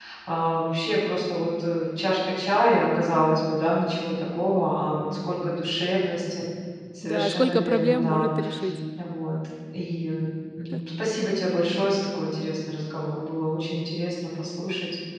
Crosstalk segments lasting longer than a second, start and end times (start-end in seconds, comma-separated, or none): 7.0-8.3